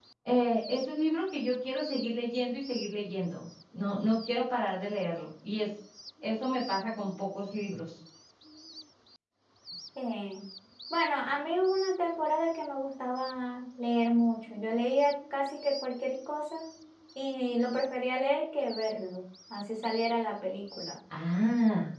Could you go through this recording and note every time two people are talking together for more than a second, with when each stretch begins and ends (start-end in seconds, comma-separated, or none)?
none